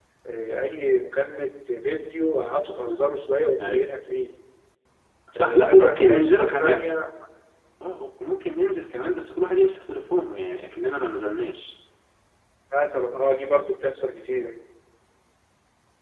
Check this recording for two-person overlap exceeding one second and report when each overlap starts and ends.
5.4-6.9

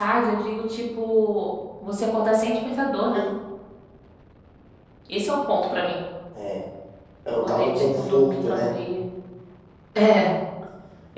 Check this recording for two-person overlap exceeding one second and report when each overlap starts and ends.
7.4-8.7

